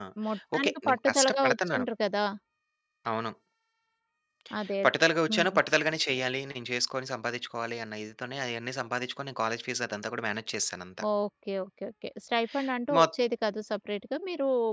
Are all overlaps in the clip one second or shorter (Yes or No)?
No